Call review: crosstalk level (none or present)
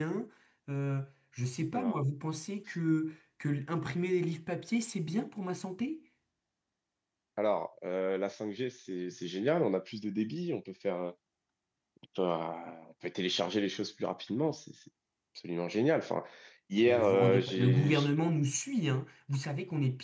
present